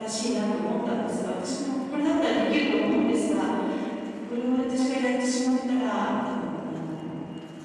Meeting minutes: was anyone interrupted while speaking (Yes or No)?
No